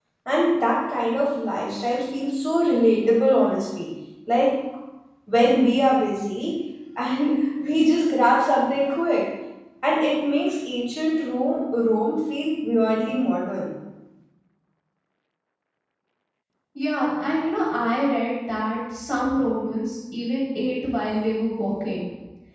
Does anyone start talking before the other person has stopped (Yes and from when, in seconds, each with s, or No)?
No